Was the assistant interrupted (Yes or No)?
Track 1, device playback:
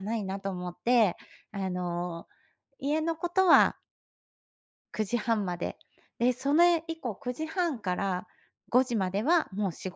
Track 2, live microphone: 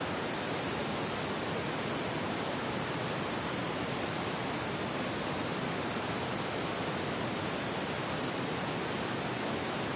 No